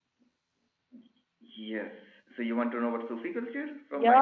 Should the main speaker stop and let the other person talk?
Yes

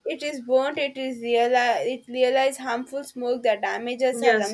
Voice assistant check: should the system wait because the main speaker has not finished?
No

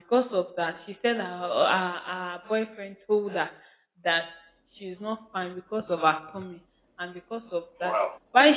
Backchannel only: Yes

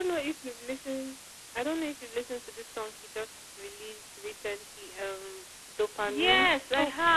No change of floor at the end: No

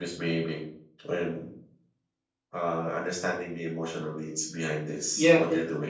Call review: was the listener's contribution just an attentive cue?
No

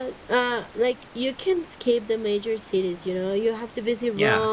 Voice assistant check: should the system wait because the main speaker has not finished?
Yes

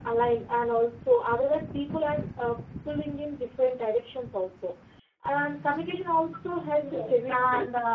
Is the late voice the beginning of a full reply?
Yes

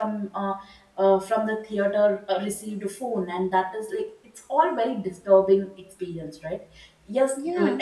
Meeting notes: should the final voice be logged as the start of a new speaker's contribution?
No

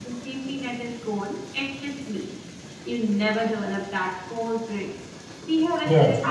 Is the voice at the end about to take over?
No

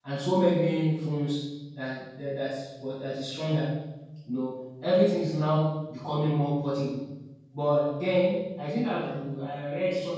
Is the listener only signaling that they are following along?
Yes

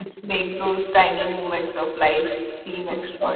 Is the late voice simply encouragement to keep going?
No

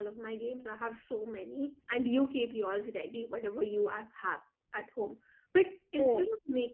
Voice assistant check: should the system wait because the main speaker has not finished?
Yes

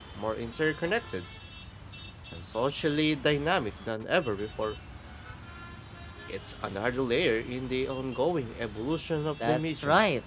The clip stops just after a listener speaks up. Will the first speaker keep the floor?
No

